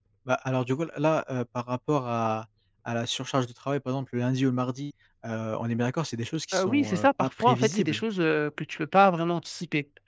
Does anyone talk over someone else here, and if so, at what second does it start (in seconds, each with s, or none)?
6.5 s